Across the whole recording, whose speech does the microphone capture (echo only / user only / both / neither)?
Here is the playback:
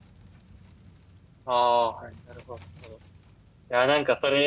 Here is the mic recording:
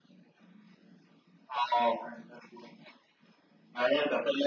echo only